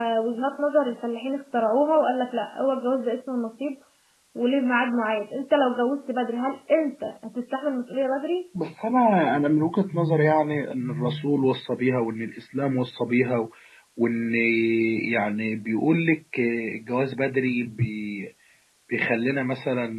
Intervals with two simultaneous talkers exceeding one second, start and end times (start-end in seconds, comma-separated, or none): none